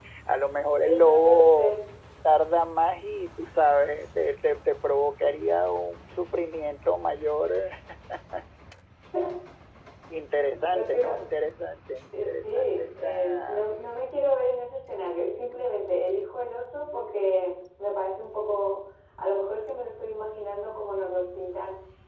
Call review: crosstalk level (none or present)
present